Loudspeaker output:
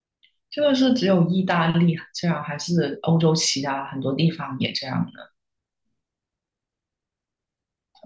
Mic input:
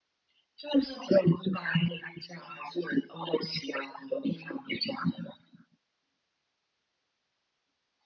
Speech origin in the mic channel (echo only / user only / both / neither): echo only